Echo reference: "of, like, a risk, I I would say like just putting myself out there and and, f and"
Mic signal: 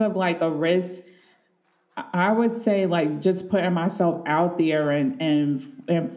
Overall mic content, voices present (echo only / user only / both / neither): echo only